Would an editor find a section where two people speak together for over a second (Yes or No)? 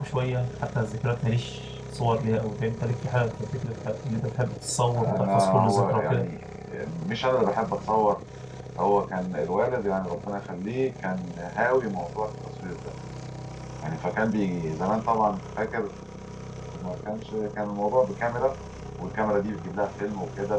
Yes